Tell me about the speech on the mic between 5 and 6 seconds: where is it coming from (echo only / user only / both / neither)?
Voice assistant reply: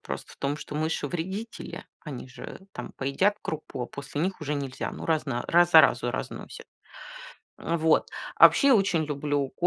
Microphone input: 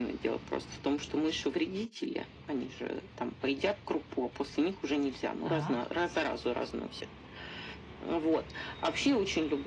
both